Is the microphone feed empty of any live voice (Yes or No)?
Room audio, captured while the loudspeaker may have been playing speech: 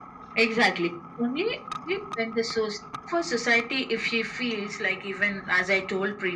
Yes